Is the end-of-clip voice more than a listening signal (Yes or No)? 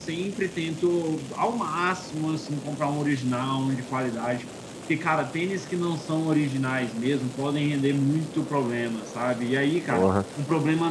No